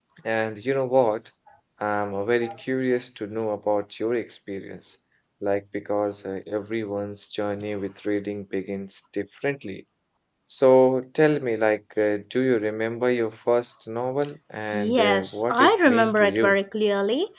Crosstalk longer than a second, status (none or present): present